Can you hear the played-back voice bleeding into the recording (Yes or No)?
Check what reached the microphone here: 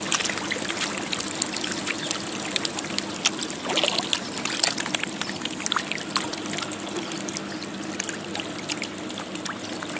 No